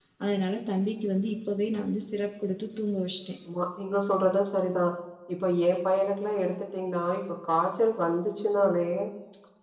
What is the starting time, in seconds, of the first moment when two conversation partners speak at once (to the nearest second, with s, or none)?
none